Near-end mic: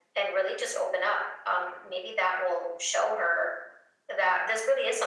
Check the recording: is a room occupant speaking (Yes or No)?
No